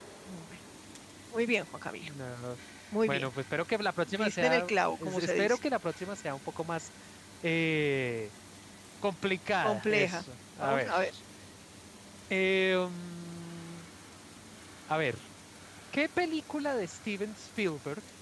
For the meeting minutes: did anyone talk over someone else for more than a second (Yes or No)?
Yes